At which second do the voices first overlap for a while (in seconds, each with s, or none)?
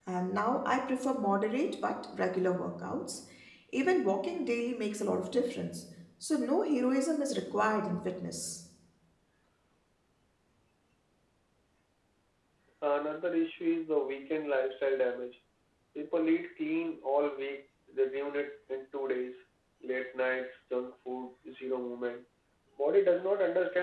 none